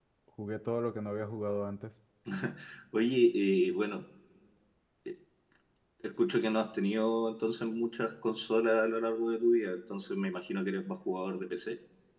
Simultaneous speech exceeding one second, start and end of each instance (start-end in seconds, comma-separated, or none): none